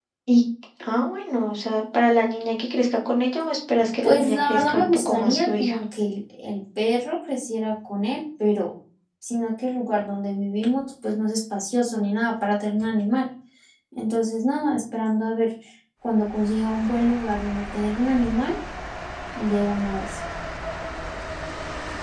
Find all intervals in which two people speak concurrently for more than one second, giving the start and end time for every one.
4.0-5.8

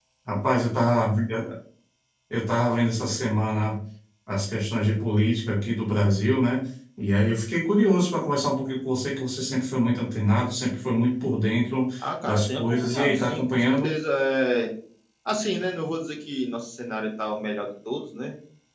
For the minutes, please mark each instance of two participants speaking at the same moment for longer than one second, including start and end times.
12.2-13.9

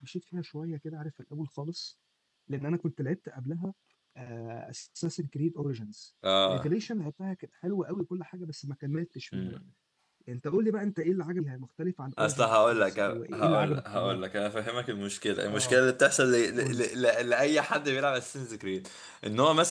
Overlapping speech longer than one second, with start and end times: 12.2-14.2

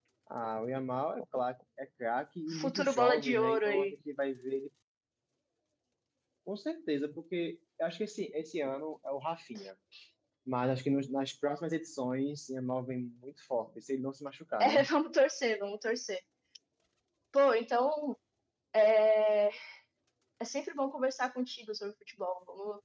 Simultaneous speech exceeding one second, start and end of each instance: 2.6-3.9

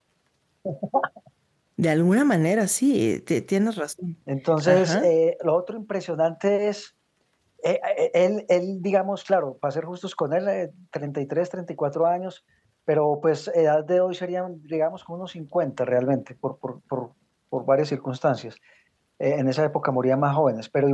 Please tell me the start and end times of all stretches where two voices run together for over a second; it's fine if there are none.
none

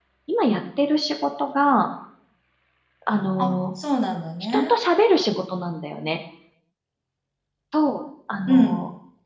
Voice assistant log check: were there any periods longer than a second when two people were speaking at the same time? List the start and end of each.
none

